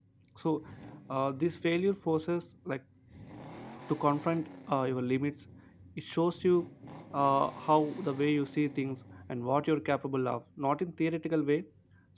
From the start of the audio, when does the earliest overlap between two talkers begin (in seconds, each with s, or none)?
none